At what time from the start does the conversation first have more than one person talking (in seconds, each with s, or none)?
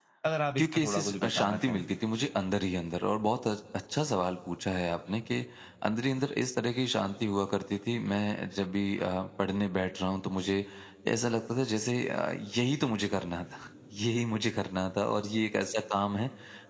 0.6 s